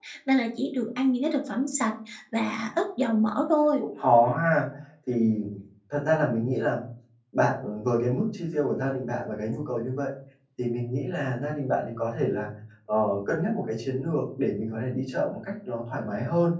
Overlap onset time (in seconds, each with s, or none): none